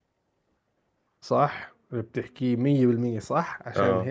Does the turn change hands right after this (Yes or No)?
No